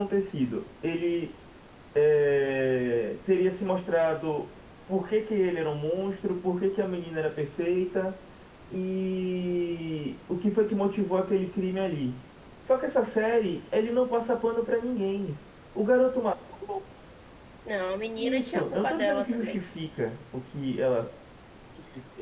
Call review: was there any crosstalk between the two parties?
Yes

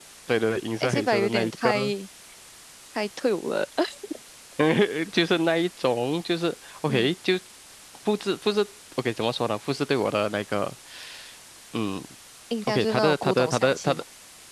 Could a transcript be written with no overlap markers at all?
No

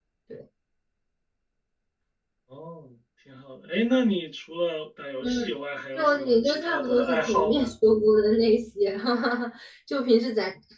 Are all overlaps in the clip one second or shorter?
No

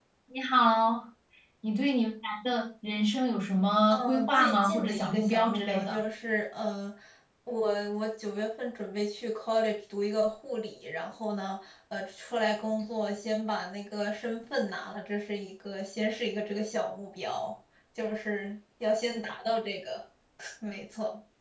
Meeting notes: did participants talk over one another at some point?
Yes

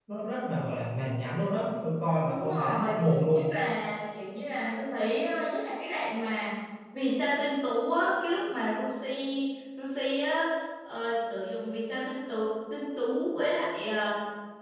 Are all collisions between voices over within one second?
No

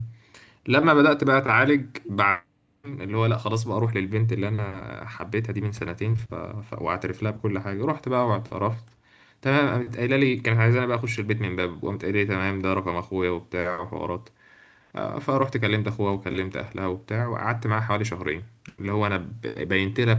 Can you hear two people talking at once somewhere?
No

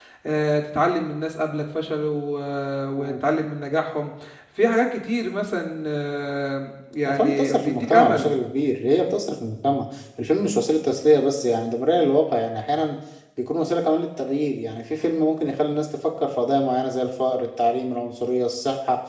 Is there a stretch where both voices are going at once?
Yes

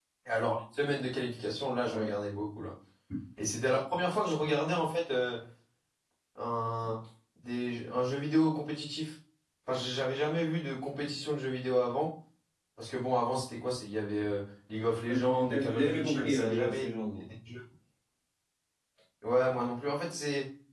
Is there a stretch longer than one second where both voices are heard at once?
Yes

